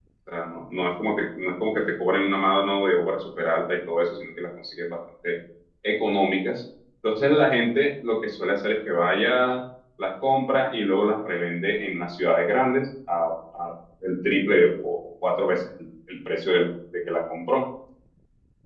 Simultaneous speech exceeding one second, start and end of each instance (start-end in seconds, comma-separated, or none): none